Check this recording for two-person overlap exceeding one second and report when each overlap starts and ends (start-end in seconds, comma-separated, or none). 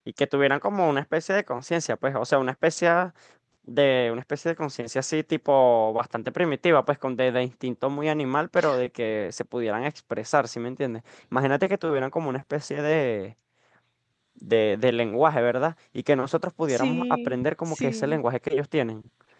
16.7-18.2